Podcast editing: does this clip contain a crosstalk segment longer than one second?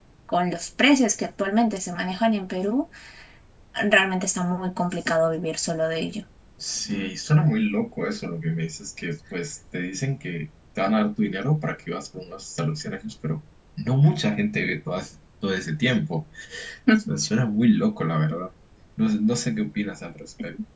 No

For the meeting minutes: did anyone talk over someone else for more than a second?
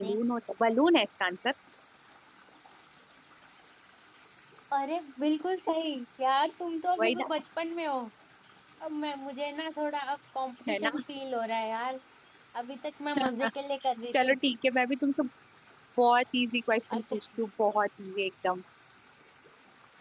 No

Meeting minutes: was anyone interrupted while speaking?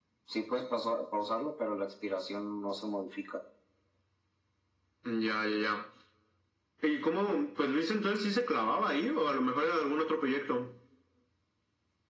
No

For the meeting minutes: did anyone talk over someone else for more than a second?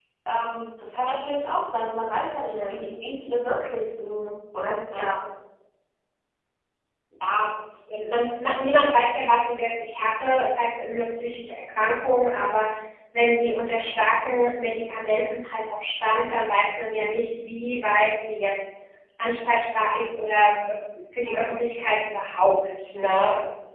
No

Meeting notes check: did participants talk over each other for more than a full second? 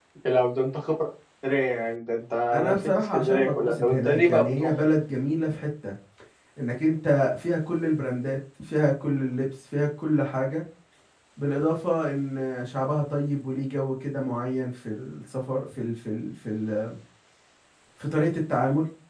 Yes, from 2.5 s

